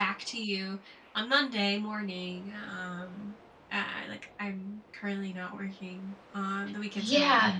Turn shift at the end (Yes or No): Yes